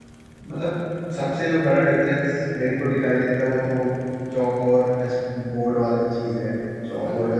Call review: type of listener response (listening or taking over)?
listening